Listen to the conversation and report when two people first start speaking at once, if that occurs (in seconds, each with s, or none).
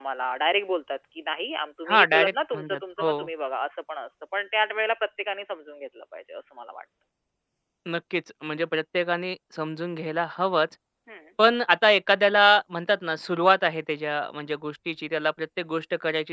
1.9 s